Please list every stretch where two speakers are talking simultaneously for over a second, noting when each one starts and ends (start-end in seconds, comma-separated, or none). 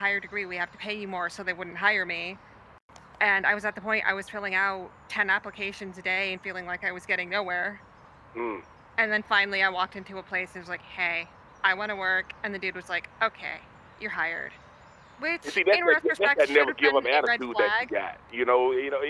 15.4-17.9